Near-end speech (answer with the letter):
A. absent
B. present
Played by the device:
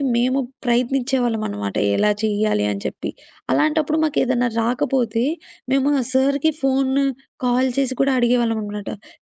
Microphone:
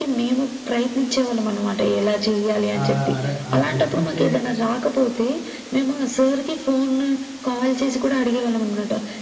B